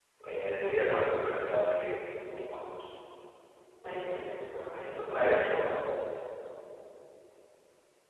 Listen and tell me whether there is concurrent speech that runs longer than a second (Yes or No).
Yes